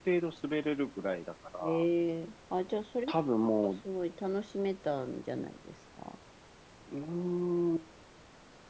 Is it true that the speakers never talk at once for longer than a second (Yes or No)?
Yes